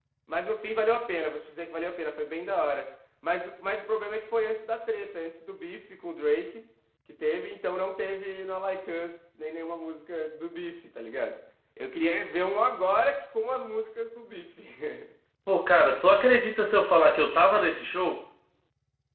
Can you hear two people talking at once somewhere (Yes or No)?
No